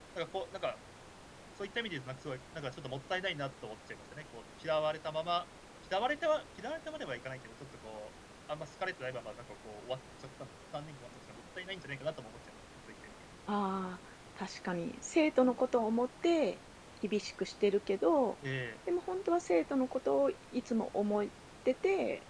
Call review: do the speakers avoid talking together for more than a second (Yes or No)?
Yes